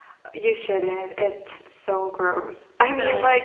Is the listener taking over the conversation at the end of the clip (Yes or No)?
No